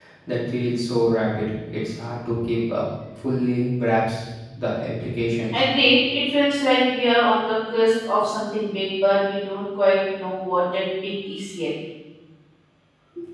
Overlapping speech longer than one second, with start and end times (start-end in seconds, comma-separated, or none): none